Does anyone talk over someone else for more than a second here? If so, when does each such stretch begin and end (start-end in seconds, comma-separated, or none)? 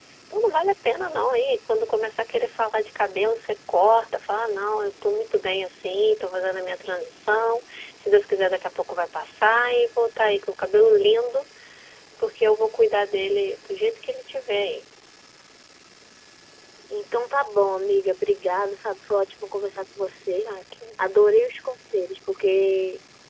none